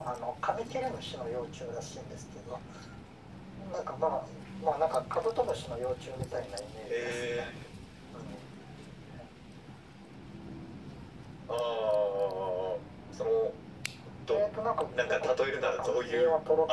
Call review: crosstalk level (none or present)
present